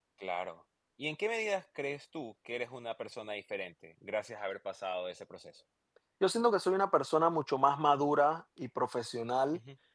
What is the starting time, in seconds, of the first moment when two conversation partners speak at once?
none

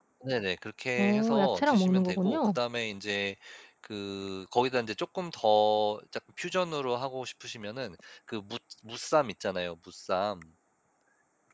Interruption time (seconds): 1.0 s

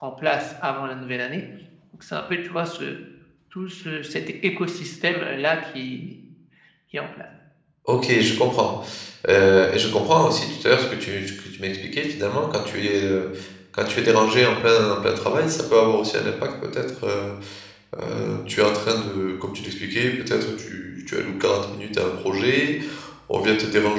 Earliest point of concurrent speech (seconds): none

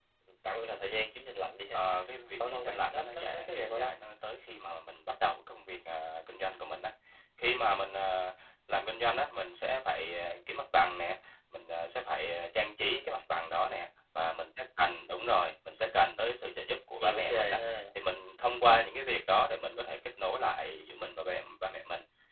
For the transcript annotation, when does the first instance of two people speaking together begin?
2.4 s

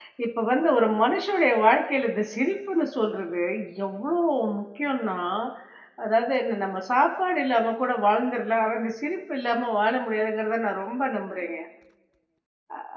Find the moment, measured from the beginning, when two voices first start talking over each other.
none

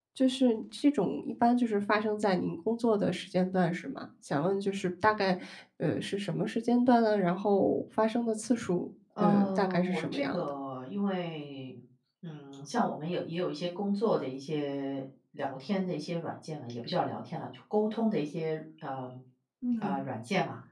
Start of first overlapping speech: 9.2 s

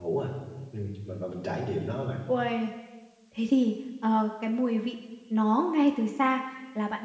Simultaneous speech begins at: none

